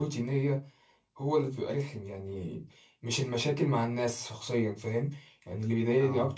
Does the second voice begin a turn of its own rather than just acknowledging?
No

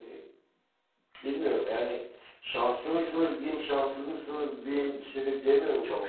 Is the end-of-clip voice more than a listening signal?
Yes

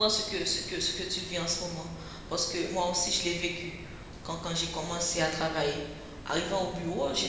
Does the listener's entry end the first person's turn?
No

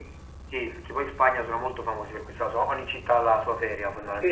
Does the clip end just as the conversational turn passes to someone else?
Yes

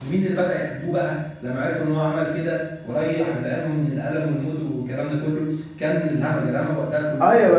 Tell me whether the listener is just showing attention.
No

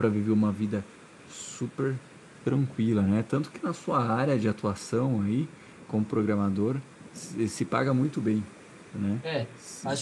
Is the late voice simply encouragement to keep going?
No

